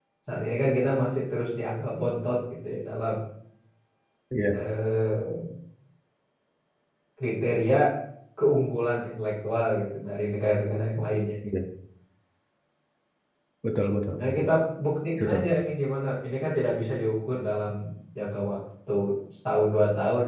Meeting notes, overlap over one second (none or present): none